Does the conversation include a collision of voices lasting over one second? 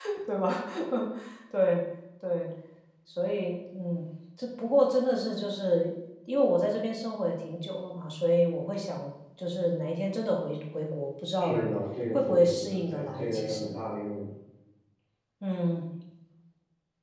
Yes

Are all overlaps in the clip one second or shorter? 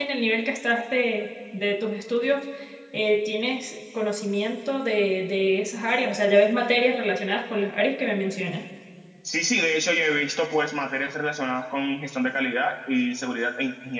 Yes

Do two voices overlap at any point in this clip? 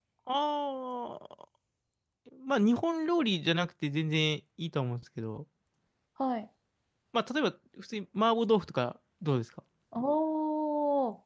No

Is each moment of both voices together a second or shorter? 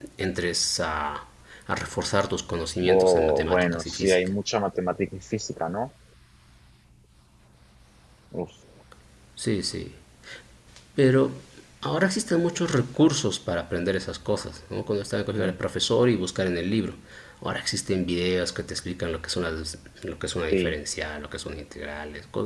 No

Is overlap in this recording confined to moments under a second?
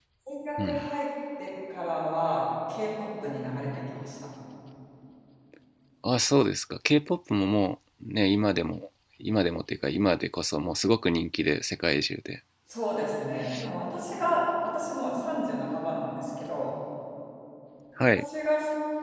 Yes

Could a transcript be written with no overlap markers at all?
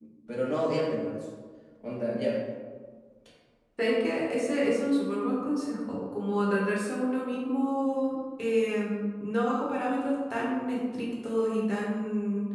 Yes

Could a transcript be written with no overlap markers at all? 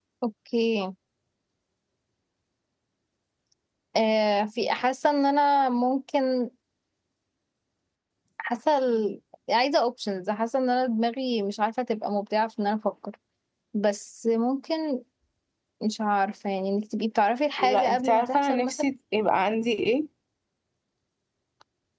No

